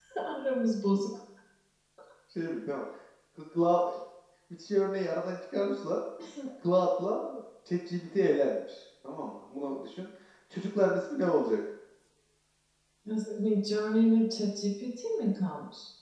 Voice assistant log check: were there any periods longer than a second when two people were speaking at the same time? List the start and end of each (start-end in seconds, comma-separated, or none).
none